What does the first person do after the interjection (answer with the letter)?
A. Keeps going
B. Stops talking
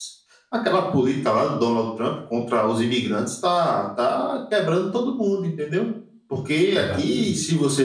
A